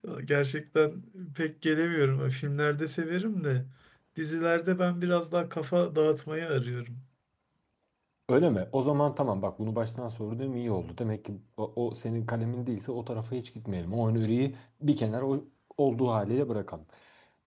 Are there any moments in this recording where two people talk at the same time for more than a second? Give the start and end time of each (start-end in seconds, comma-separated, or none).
none